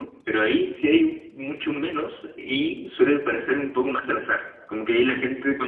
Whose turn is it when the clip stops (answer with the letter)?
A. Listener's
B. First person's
B